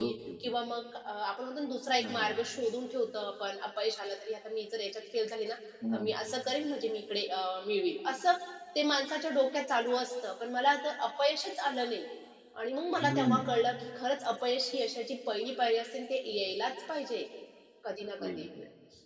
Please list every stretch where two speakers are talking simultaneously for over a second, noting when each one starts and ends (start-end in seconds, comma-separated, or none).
none